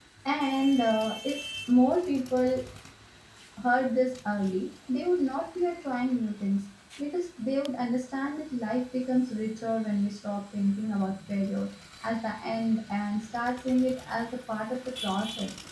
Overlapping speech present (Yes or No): No